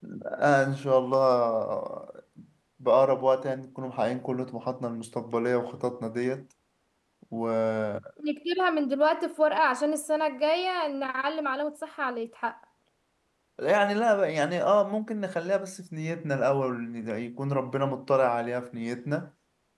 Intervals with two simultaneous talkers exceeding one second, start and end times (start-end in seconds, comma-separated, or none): none